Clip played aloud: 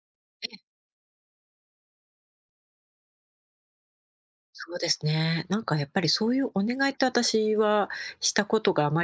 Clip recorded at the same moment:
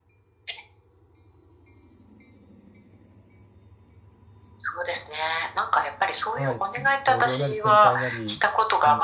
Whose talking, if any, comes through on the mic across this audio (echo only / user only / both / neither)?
both